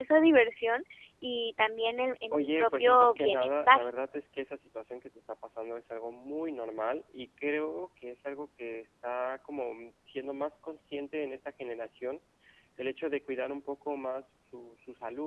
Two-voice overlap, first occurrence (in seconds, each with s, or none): 2.3 s